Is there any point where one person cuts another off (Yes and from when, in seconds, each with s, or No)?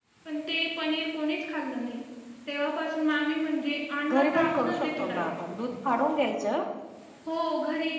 Yes, from 4.1 s